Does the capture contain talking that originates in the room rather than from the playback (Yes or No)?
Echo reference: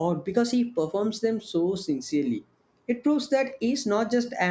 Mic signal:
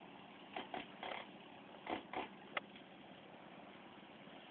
No